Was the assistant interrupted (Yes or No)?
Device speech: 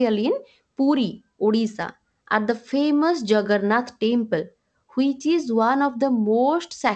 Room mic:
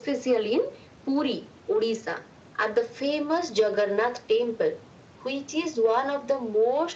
No